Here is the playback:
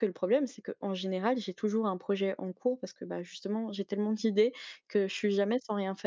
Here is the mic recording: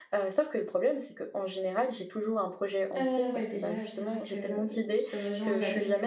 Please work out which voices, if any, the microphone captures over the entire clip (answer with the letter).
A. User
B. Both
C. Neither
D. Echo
B